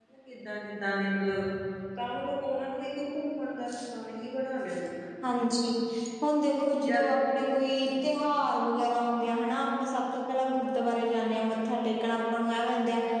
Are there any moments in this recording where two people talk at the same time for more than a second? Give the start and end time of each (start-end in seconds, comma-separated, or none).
6.9-8.2